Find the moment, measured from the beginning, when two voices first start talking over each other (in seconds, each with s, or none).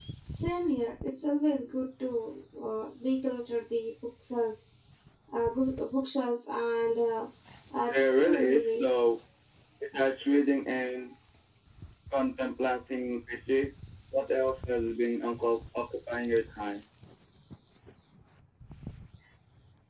7.9 s